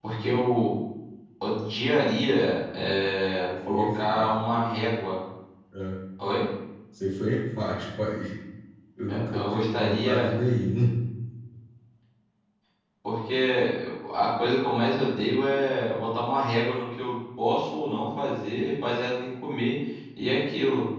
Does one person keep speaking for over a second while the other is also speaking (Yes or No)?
Yes